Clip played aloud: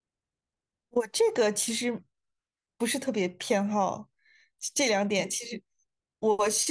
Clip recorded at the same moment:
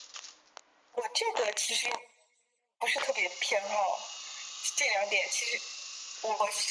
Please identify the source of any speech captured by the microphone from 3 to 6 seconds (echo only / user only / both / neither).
echo only